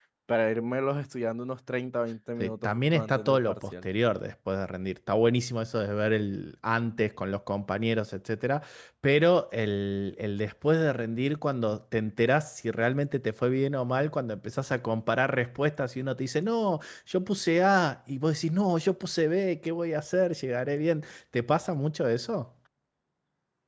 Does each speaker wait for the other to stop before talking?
No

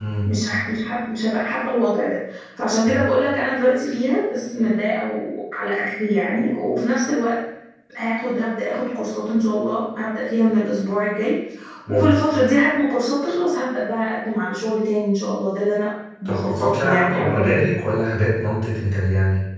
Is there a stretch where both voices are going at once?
Yes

